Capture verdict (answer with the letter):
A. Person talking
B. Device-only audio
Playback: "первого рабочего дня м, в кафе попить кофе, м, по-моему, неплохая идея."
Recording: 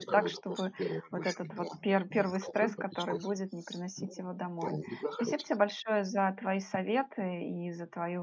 A